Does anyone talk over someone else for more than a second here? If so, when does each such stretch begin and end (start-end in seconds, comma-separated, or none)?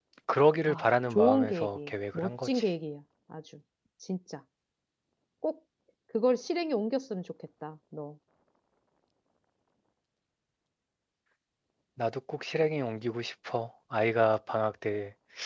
0.7-2.6